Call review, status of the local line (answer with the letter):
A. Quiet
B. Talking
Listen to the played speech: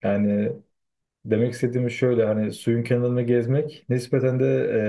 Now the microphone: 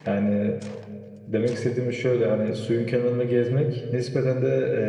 A